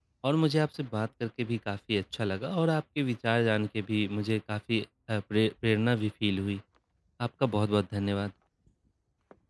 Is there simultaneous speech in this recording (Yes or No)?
No